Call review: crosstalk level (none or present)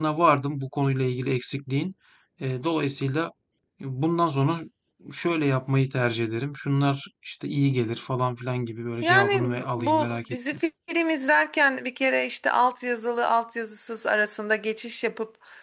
present